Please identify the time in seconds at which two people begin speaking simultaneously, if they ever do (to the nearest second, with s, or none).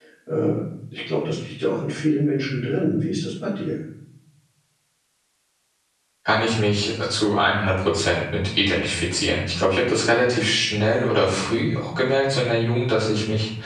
none